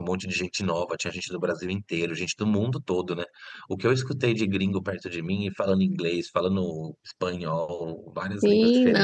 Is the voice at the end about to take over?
Yes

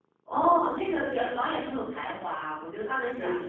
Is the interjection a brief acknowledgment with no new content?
Yes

